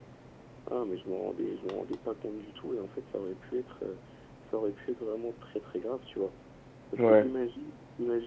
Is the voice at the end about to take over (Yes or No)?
No